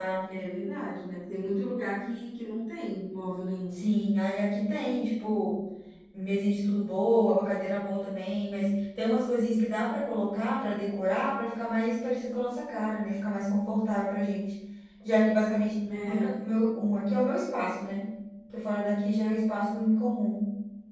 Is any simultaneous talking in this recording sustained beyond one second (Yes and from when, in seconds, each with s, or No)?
No